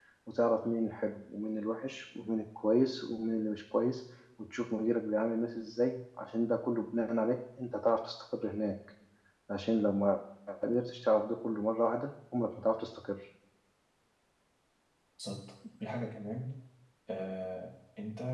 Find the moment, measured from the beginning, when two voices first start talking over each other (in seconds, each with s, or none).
none